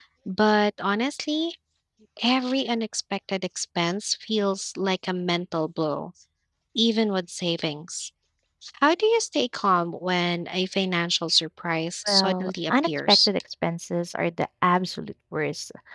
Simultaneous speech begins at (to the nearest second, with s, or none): 12 s